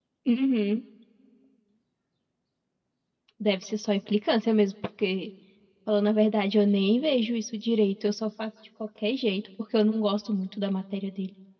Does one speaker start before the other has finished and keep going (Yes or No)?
No